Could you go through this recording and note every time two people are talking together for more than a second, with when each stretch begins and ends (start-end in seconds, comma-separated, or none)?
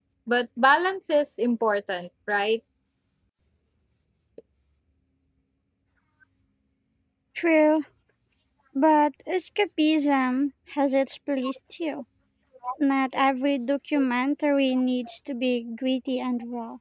none